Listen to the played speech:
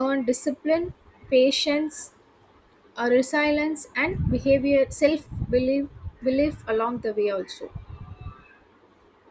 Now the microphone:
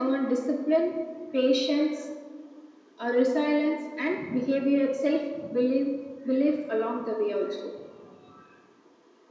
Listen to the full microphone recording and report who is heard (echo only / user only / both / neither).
echo only